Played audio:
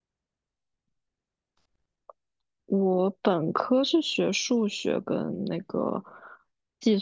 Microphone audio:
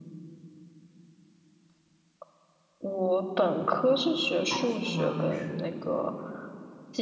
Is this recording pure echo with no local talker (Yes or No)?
No